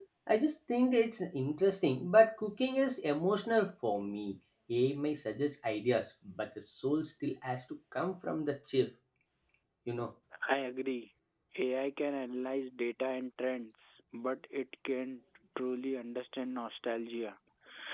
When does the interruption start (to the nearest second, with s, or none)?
none